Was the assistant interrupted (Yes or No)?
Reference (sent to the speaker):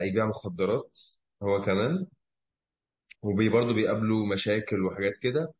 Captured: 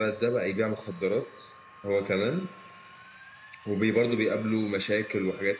No